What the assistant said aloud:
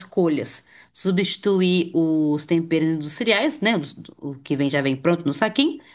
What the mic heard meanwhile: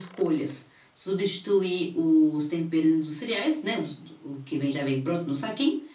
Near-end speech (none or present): none